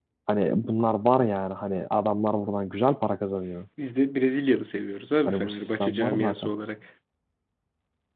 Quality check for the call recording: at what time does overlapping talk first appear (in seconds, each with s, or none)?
5.3 s